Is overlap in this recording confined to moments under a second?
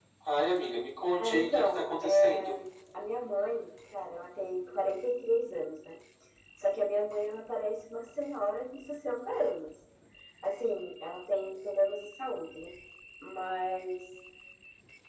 No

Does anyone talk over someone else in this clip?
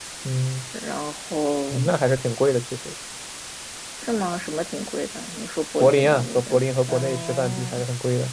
Yes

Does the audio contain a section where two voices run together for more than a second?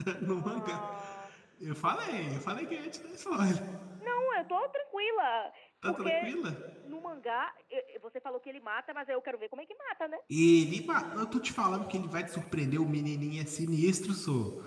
No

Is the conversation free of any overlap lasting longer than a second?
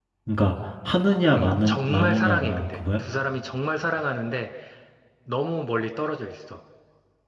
No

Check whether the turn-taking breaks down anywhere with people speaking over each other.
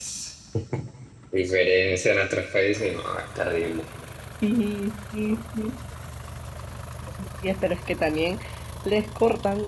No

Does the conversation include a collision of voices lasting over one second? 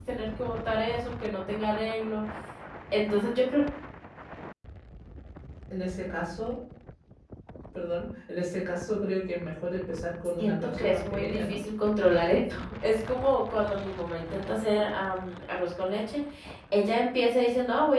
Yes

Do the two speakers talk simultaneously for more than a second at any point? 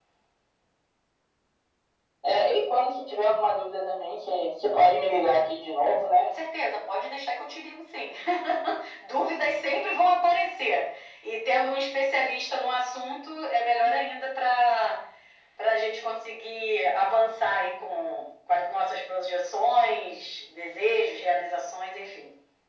No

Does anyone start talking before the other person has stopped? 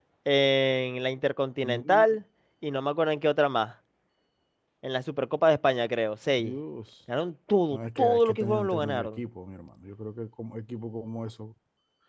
Yes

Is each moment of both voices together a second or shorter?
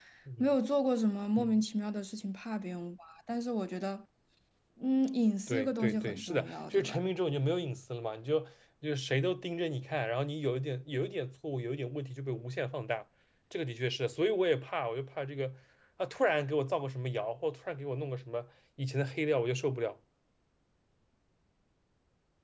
No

